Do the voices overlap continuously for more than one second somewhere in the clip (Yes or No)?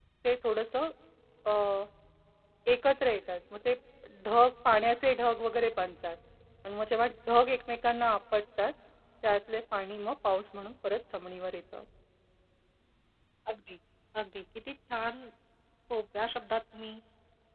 No